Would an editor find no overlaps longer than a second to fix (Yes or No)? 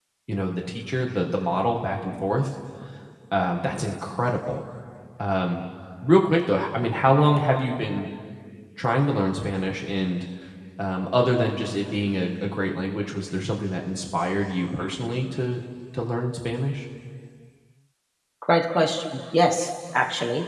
Yes